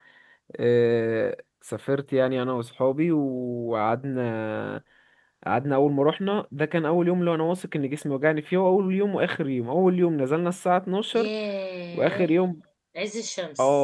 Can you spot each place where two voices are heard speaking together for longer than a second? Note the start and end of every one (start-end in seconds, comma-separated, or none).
none